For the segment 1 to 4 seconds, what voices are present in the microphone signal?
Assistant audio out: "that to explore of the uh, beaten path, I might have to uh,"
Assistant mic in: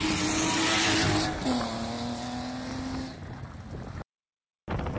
neither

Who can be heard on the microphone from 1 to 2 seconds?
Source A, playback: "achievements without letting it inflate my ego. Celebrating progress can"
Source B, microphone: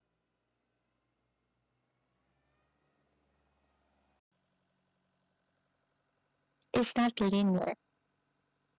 neither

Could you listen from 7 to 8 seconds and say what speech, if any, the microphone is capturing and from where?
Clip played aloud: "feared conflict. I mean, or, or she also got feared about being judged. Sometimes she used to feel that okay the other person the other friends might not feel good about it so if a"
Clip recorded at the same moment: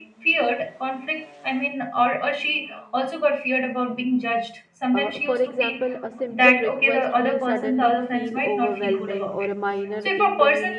both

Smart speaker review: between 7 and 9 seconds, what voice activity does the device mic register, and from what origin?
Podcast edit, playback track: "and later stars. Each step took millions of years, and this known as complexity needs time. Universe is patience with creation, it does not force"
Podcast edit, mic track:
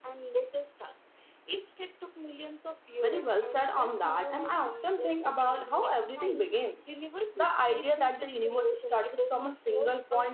both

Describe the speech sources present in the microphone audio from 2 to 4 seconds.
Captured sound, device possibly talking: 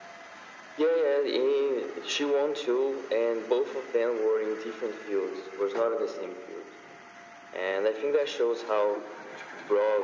echo only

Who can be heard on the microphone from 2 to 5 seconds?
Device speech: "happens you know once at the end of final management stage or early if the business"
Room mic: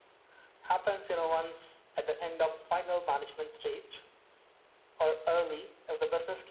echo only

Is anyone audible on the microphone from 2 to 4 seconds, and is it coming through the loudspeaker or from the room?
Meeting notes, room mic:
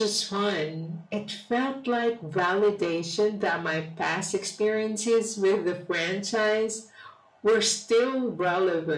echo only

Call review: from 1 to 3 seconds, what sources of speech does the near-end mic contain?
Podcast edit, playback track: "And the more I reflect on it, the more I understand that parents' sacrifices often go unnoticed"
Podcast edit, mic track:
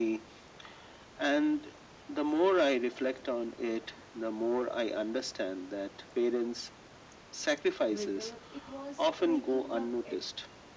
echo only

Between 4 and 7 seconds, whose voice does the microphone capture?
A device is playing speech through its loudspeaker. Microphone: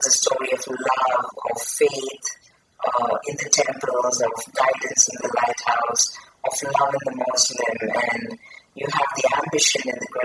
echo only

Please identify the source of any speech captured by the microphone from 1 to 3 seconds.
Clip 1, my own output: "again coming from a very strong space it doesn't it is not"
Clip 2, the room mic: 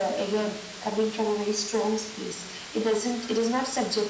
echo only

